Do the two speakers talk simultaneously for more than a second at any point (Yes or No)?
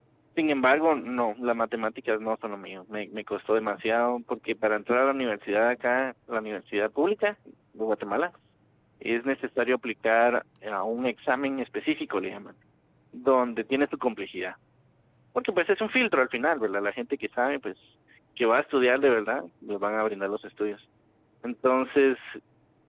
No